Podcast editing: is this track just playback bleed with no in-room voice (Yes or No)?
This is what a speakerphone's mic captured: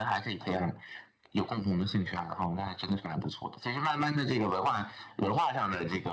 Yes